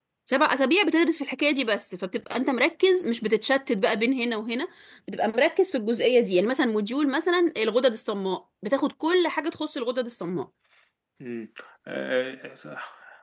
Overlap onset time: none

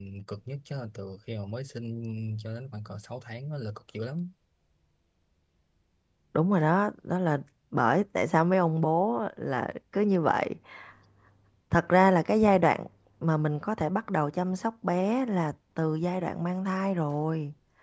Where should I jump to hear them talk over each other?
none

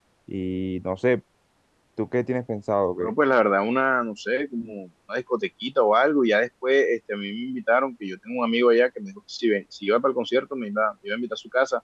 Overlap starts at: none

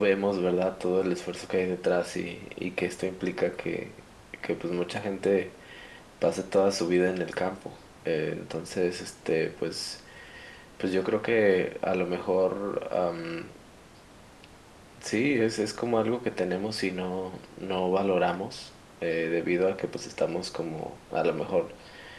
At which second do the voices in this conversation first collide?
none

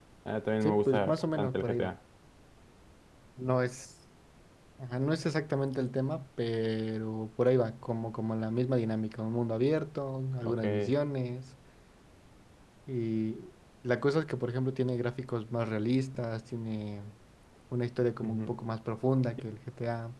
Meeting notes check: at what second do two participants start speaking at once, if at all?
0.6 s

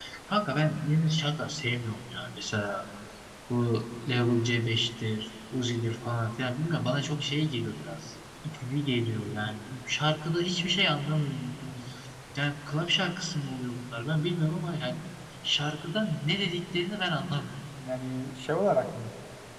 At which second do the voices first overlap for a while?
none

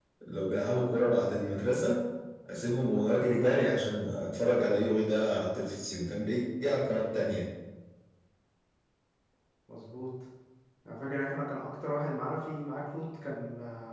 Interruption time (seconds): none

